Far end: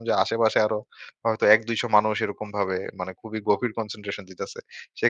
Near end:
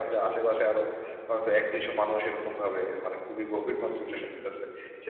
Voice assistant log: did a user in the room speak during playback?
No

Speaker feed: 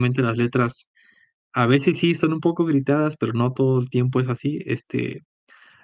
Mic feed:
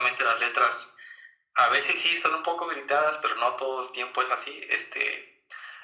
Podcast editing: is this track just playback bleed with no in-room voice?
Yes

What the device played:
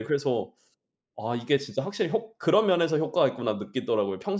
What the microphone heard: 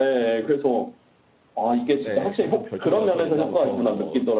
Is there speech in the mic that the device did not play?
Yes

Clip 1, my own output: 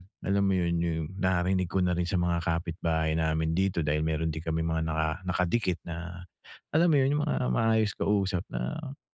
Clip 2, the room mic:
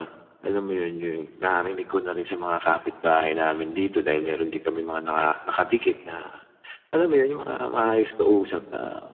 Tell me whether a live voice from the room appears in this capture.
No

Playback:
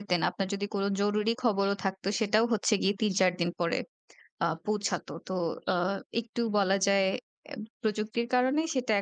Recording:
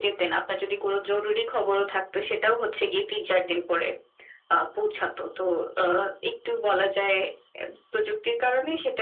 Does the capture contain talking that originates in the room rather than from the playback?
No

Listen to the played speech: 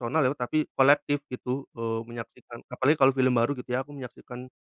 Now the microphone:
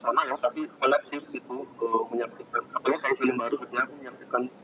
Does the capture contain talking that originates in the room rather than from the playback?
No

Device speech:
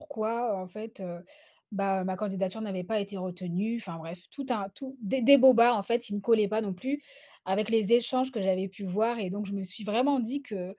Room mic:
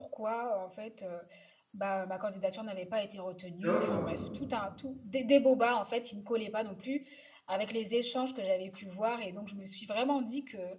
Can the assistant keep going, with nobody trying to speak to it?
No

